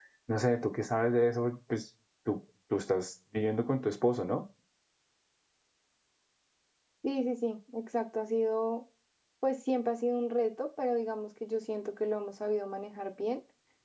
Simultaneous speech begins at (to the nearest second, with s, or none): none